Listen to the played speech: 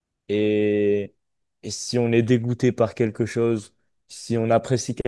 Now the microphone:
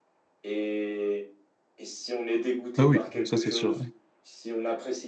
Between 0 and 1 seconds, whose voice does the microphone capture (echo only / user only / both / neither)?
echo only